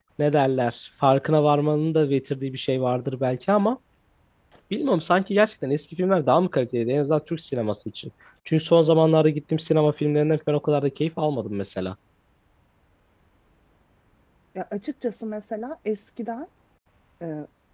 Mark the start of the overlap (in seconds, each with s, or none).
none